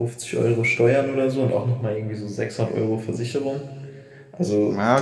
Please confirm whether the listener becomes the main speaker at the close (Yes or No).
No